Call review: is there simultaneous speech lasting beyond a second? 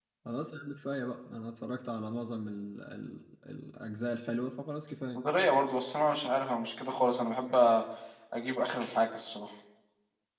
No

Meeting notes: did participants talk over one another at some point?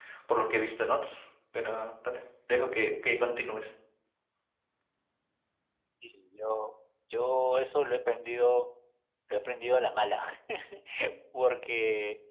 No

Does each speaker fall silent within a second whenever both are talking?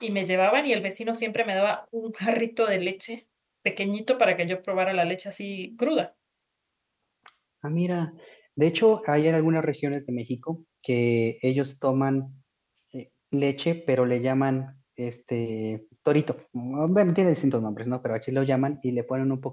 Yes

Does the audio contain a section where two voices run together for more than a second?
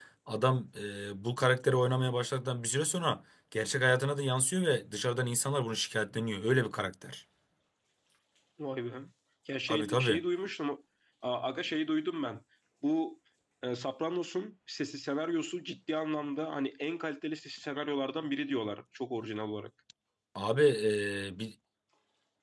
No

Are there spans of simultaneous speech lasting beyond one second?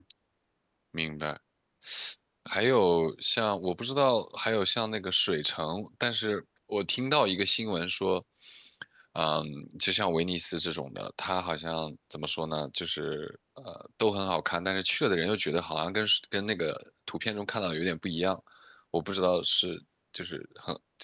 No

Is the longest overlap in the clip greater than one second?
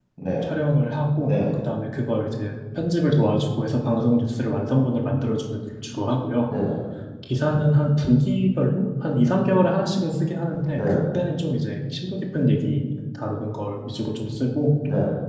No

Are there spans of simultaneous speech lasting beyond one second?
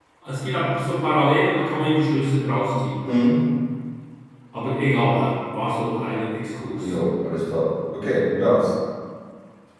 No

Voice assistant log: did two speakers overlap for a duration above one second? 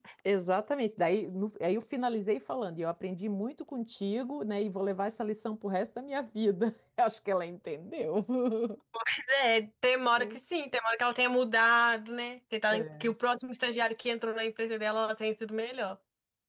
No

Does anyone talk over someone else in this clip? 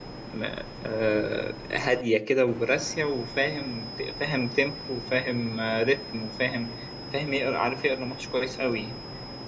No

